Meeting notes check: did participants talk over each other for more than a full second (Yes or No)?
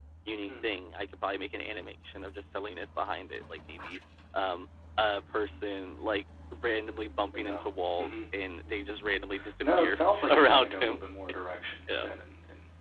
Yes